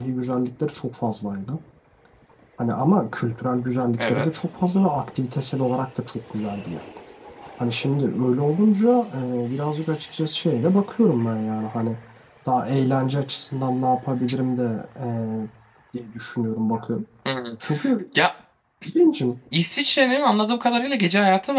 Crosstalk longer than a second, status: none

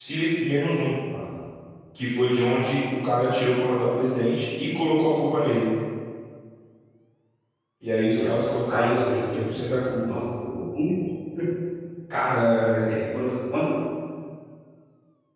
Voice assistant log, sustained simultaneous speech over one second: present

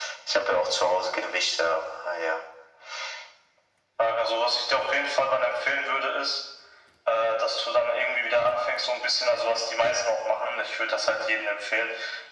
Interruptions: none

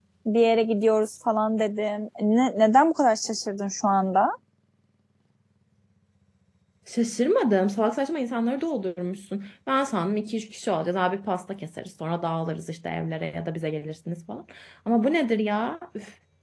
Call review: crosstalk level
none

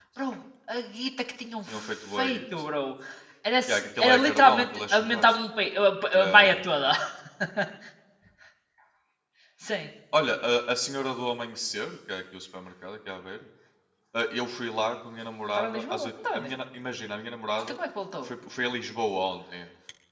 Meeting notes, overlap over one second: present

